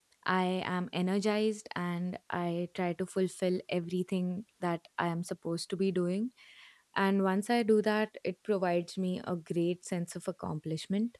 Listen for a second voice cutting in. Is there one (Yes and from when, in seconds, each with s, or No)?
No